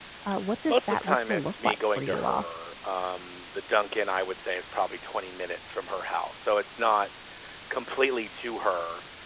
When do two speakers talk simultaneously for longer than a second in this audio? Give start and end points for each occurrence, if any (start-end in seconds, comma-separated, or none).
0.7-2.4